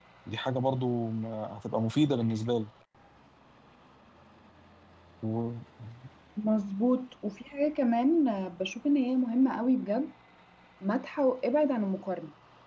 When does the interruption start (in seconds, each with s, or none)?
none